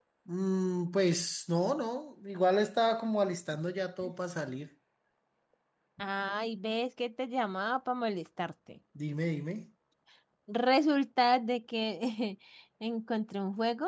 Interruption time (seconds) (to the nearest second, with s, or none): none